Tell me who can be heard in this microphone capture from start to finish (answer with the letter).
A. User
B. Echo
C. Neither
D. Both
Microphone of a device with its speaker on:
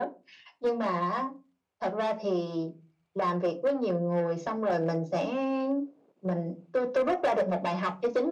B